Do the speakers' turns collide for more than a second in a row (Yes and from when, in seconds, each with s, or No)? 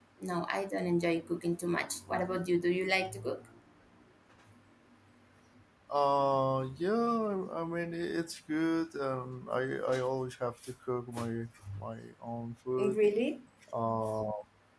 No